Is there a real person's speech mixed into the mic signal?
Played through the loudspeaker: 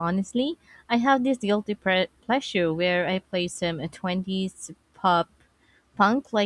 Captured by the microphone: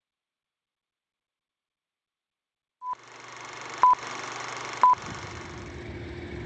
No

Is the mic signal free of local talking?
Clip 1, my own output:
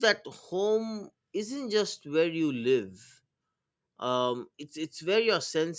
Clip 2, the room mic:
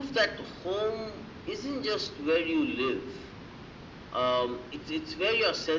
Yes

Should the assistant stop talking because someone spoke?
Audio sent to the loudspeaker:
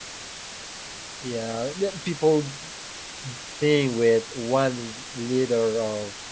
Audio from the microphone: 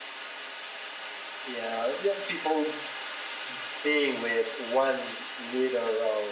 No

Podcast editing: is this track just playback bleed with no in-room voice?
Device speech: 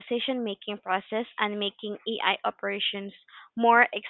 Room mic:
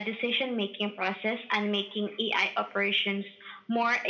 Yes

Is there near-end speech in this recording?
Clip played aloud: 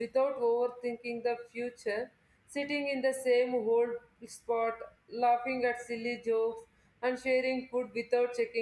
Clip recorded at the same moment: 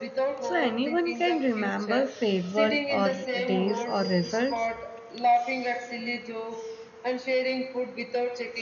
Yes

